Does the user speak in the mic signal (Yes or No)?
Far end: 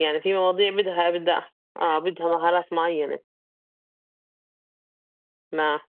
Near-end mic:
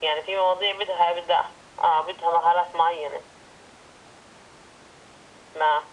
No